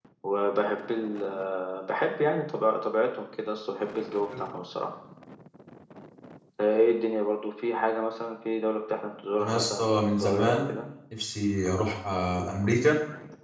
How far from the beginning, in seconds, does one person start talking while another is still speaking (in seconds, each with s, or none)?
9.4 s